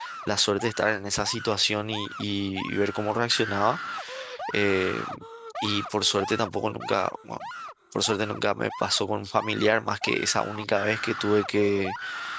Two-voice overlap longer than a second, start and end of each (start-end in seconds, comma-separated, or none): none